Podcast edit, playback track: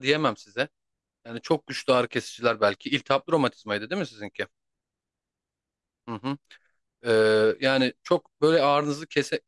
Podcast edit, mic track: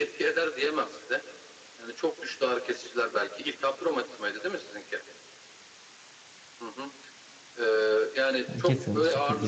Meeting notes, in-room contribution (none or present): present